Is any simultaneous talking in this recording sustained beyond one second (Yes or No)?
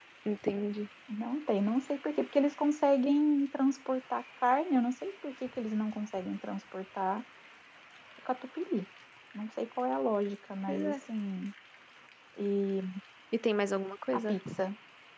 No